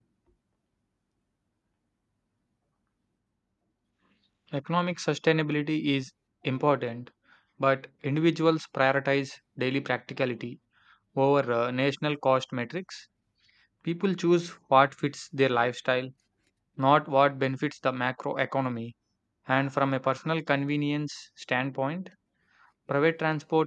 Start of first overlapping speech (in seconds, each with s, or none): none